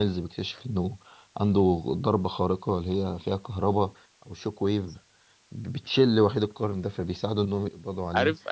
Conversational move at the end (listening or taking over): taking over